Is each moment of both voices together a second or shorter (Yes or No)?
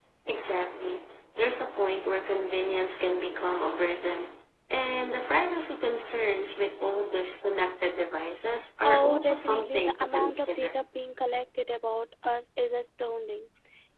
No